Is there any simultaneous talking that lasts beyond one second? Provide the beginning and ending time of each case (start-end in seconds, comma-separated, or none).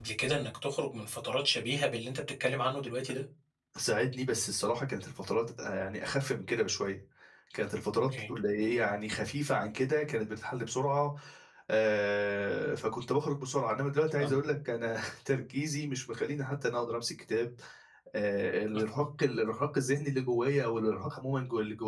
none